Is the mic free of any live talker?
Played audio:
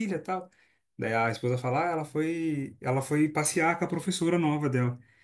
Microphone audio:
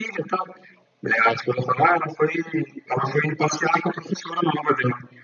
Yes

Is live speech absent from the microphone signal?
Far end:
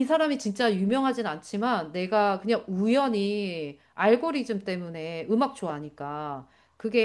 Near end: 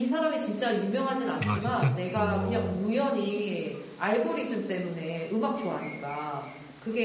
No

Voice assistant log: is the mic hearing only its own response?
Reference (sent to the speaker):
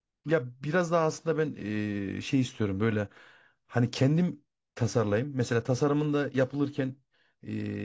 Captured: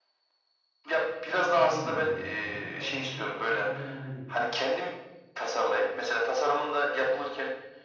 No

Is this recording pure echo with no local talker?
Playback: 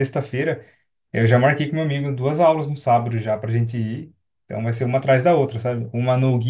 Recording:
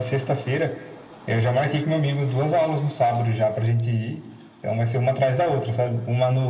Yes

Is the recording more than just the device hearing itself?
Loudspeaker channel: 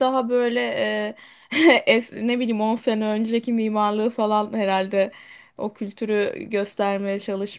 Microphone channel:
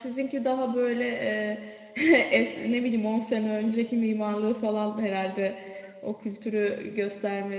No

